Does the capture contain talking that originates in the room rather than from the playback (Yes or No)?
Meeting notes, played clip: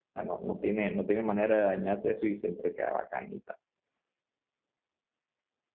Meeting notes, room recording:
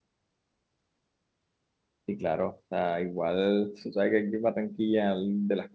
Yes